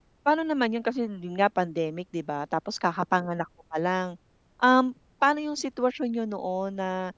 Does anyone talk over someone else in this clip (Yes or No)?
No